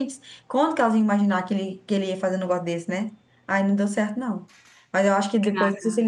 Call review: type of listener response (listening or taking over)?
listening